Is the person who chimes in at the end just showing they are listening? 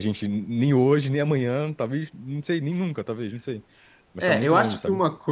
No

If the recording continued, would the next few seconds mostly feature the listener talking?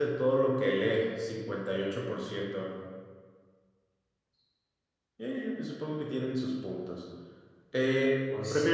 No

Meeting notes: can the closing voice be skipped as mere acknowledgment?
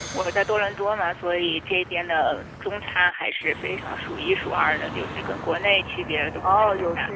No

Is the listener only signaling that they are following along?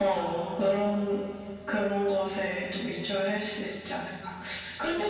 Yes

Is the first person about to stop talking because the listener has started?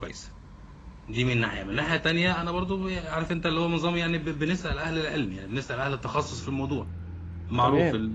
Yes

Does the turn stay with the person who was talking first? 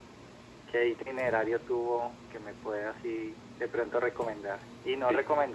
Yes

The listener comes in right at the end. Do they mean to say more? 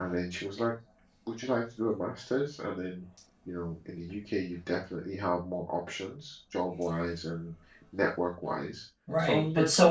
Yes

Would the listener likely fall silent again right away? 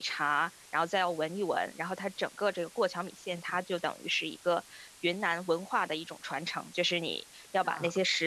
Yes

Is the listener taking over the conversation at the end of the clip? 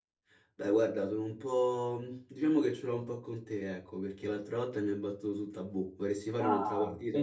Yes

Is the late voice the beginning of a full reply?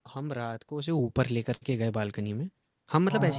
No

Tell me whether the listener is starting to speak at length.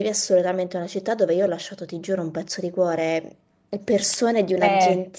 No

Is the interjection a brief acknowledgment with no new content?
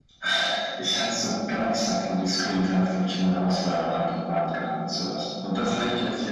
Yes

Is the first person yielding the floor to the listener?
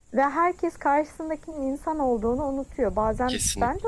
No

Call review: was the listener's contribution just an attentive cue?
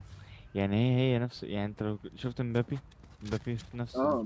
No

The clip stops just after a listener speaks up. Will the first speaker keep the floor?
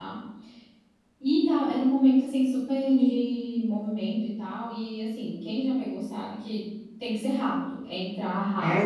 No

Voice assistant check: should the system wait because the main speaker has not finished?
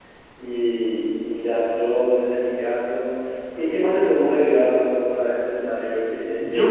No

